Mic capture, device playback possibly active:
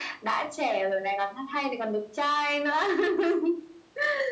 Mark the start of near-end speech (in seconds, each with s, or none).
none